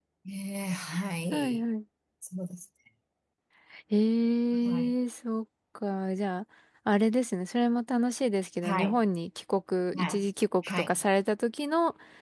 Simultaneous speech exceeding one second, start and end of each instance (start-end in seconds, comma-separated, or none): none